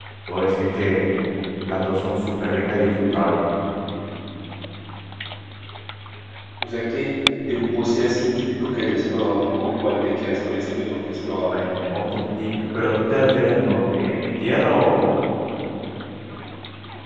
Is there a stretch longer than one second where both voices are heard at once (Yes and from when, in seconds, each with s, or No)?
No